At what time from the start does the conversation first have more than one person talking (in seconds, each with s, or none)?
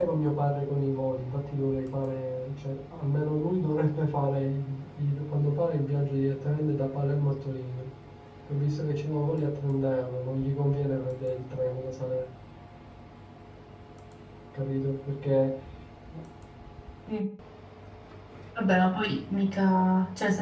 none